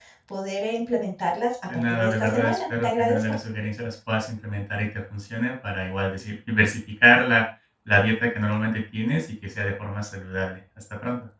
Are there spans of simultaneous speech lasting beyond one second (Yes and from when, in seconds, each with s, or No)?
Yes, from 1.7 s